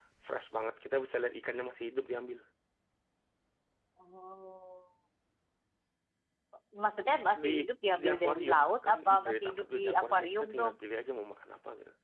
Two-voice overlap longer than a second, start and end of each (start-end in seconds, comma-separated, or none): 8.0-10.7